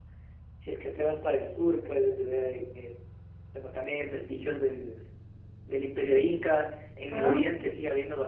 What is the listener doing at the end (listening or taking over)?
listening